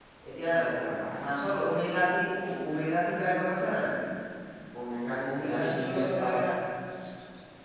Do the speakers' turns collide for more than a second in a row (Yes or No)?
Yes